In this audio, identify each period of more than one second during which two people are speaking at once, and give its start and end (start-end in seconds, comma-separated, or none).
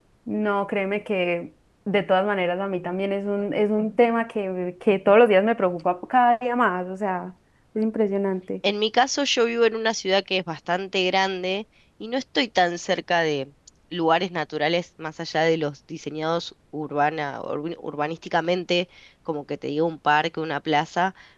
none